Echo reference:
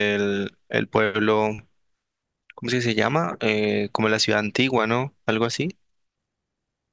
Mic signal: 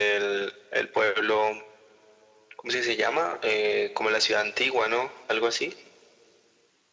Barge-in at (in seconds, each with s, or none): none